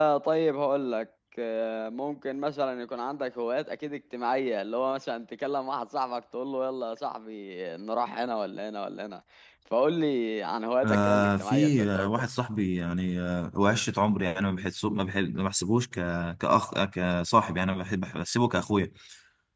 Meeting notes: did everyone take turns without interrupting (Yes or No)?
No